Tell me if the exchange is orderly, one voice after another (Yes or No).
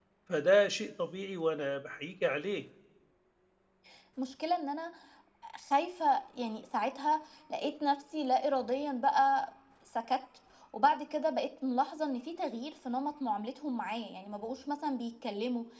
Yes